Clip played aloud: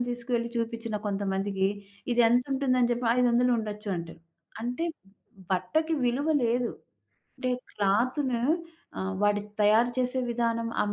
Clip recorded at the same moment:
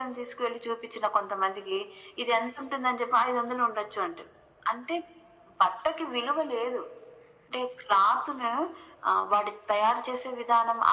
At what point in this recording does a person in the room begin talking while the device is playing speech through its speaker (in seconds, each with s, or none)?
none